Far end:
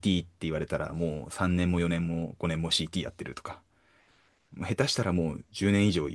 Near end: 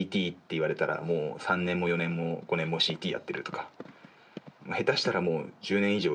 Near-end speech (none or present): none